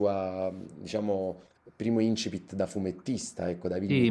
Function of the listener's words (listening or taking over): taking over